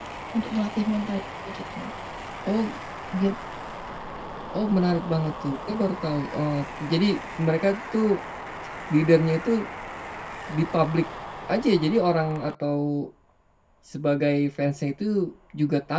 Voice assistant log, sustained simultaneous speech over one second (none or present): none